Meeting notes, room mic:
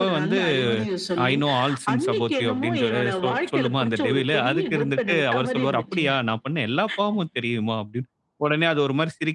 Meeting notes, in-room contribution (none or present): present